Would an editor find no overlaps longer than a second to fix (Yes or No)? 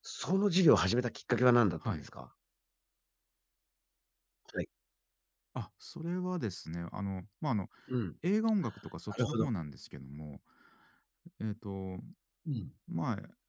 Yes